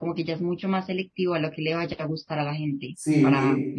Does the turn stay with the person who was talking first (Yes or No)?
No